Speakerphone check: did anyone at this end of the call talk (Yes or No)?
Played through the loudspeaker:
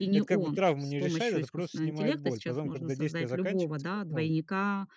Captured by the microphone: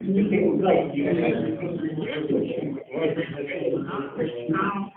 Yes